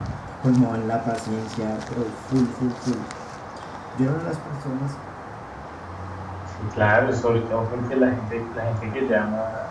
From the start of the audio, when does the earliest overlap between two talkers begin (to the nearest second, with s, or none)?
none